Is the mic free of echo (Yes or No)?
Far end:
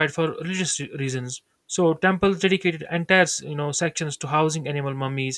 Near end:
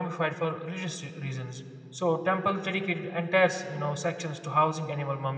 No